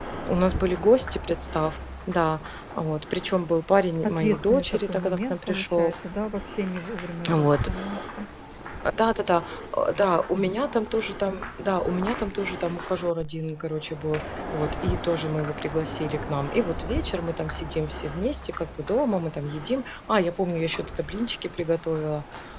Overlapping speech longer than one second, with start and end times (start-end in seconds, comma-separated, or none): 4.0-5.9